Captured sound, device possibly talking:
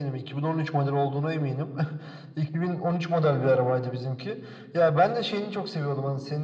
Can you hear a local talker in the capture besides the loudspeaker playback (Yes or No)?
No